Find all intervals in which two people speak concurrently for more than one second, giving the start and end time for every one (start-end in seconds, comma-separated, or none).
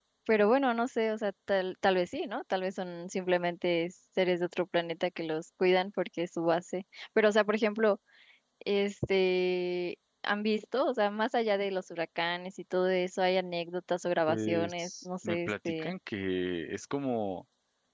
14.3-15.9